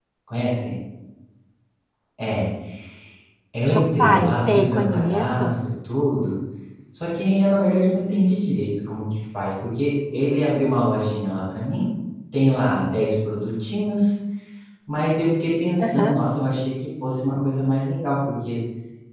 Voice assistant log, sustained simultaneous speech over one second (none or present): present